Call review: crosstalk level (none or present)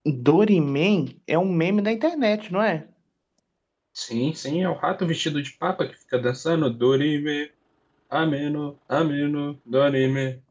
none